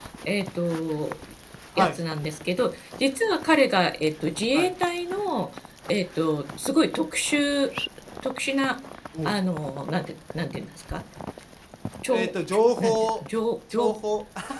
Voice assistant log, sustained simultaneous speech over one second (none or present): none